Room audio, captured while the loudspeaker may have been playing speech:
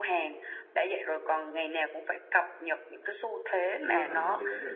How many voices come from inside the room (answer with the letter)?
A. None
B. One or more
B